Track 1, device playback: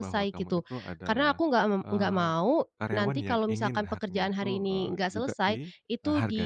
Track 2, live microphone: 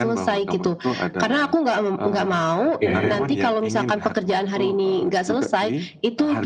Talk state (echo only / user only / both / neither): both